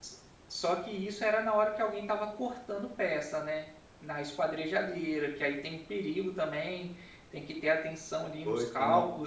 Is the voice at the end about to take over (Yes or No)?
Yes